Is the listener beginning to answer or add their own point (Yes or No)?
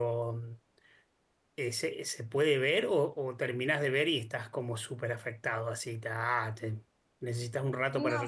Yes